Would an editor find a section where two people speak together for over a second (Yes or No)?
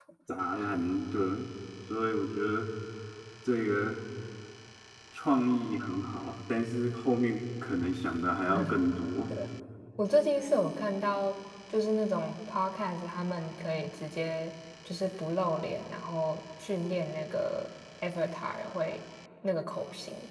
No